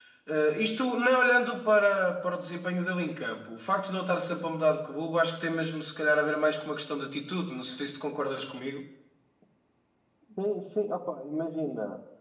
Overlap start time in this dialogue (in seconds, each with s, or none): none